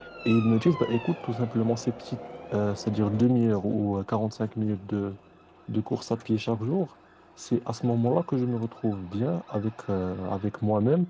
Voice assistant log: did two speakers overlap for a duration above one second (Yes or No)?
No